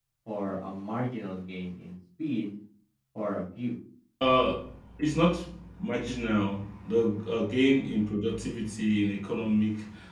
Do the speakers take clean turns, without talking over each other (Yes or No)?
Yes